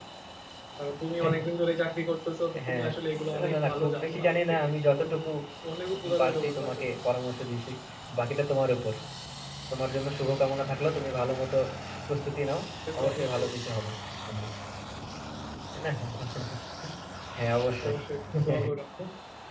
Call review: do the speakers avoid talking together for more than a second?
No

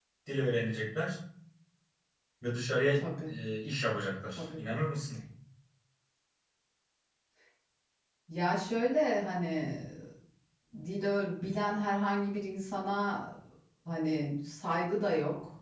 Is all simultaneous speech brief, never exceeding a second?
Yes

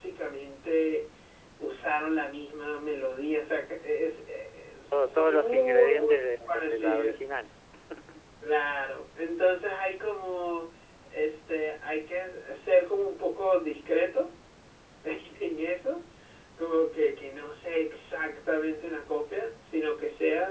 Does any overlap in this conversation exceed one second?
Yes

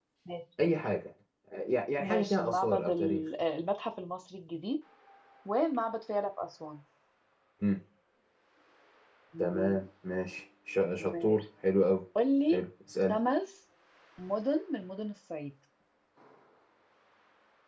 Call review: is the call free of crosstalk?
No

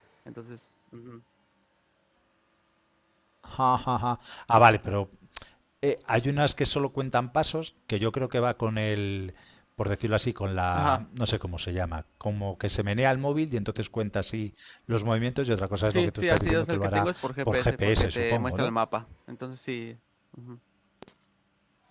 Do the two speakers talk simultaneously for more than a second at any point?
Yes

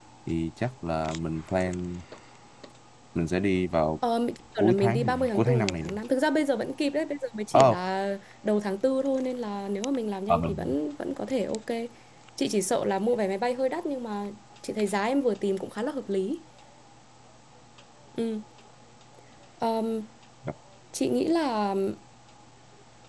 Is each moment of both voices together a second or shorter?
No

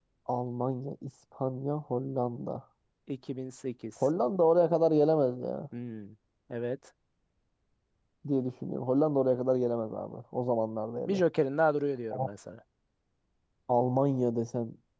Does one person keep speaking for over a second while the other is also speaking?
No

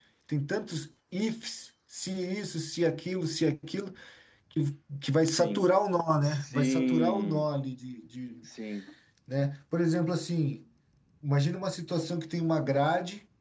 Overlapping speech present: Yes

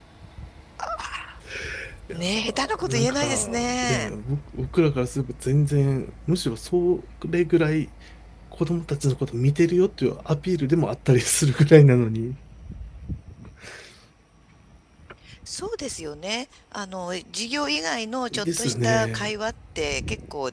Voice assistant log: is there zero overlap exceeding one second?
No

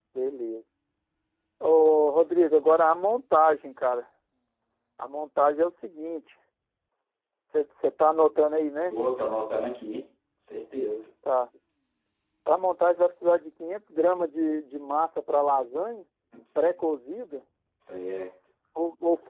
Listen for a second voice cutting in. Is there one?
No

